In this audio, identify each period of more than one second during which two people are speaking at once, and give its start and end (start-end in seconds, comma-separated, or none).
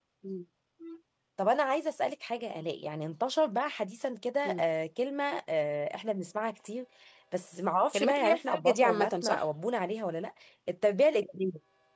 7.9-9.4